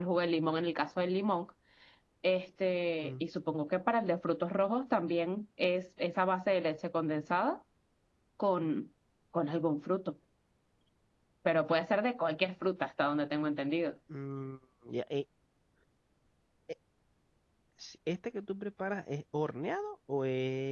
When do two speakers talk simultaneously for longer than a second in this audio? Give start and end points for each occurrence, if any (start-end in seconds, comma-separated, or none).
none